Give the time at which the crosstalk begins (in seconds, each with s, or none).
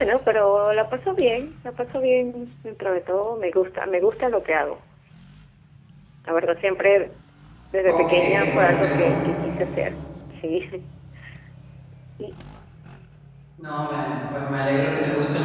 7.9 s